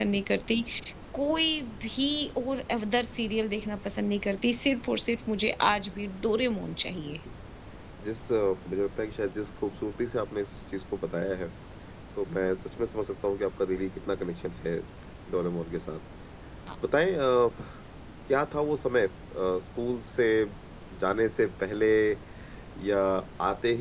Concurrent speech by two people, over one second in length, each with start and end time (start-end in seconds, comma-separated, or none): none